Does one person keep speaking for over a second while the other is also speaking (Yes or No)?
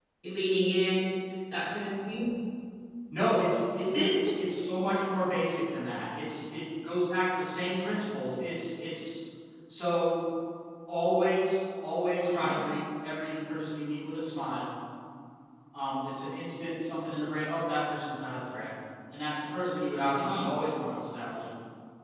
No